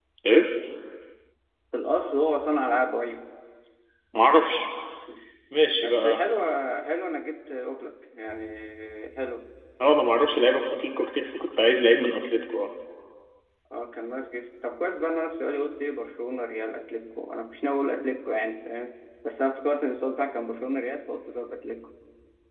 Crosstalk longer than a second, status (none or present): none